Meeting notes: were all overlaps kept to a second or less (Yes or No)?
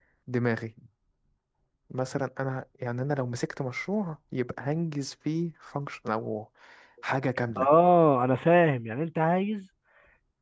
Yes